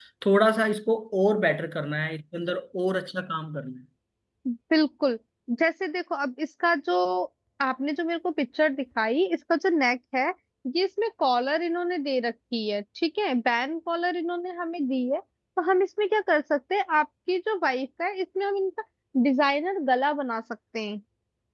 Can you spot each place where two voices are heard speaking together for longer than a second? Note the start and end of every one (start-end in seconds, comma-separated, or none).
none